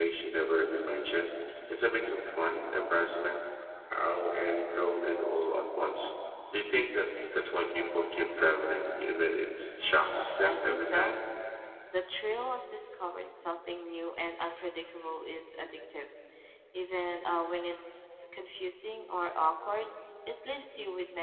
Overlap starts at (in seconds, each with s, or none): 9.8 s